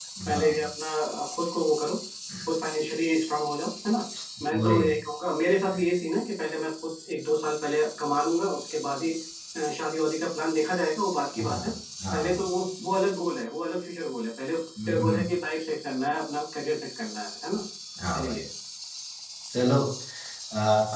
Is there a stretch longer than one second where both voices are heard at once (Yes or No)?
No